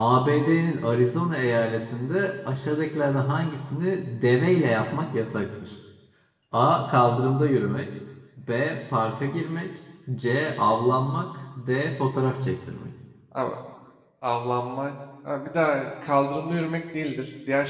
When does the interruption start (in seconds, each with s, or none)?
none